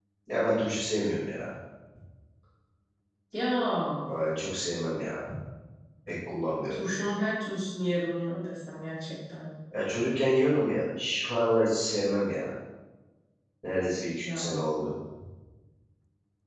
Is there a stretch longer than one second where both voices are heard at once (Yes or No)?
No